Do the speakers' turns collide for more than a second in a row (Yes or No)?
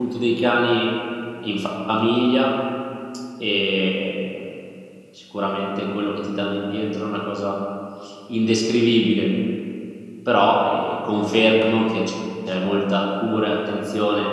No